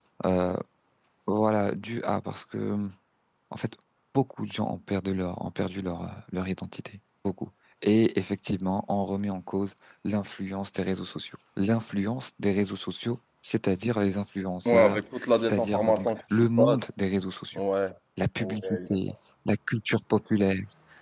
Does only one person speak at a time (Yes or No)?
No